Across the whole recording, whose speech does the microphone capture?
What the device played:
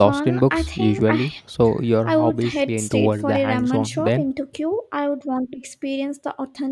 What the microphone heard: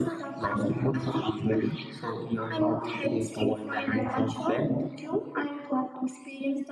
echo only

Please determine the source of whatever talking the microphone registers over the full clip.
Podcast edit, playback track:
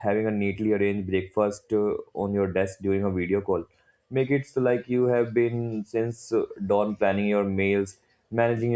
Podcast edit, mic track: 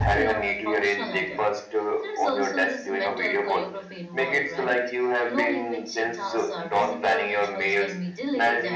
both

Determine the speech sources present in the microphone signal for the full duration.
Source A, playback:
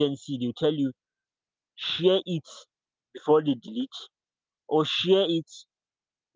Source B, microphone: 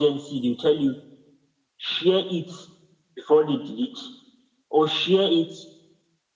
echo only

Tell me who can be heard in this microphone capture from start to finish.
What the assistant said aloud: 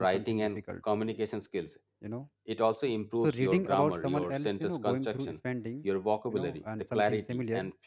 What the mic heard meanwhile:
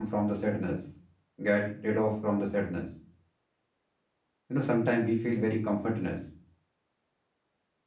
user only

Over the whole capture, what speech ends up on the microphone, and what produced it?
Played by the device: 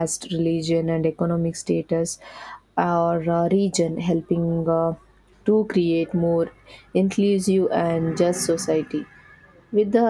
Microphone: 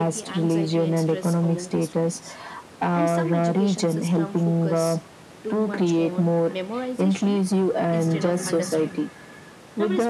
both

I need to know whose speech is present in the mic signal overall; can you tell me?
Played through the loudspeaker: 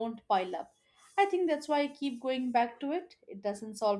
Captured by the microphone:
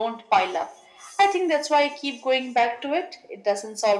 echo only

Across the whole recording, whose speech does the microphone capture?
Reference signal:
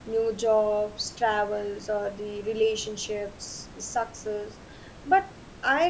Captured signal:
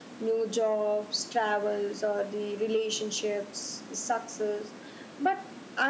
echo only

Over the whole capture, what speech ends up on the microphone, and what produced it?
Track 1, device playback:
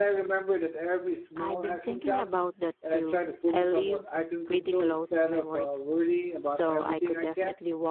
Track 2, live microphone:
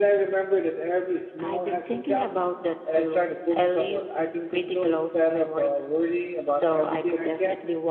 echo only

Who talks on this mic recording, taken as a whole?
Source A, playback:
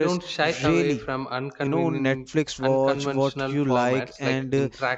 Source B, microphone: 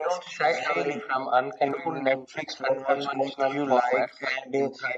echo only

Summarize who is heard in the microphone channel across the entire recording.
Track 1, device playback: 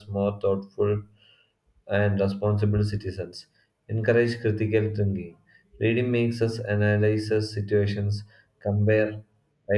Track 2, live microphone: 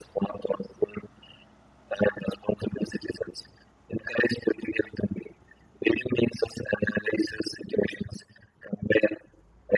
echo only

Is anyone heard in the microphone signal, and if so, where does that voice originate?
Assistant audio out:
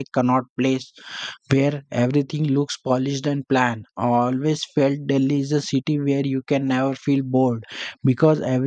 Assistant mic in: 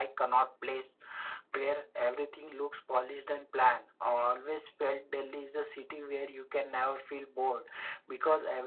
echo only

